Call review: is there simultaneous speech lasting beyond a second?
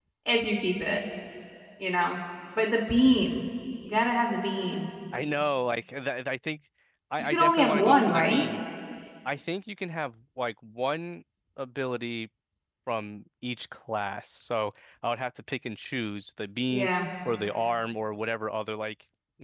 Yes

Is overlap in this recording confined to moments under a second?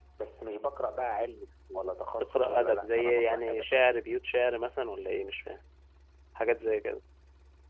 No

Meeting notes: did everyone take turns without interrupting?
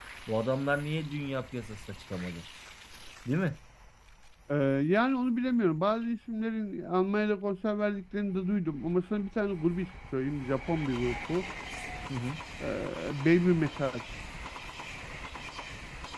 Yes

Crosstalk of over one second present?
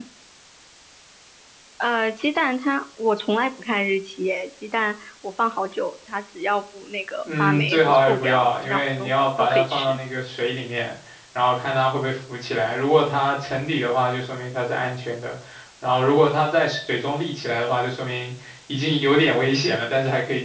Yes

